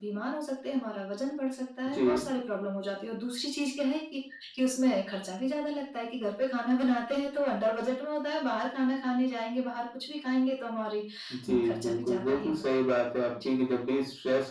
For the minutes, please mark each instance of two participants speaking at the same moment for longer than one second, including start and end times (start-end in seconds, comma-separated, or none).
11.5-12.8